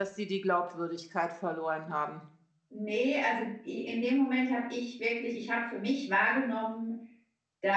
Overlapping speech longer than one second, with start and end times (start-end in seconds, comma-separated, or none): none